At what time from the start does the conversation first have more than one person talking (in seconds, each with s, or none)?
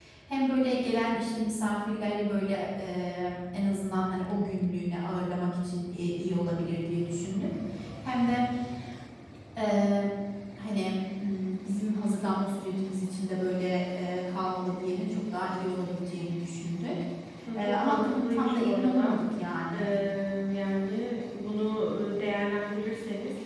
17.6 s